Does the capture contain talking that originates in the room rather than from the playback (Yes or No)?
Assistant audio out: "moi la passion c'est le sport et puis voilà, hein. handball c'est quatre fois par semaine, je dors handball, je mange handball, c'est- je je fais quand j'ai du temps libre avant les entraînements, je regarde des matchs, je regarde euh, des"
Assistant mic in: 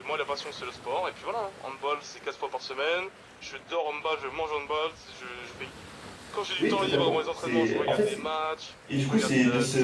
Yes